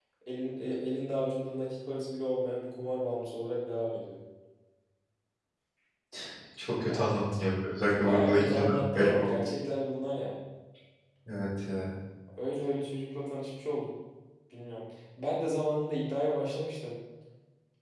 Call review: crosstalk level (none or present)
present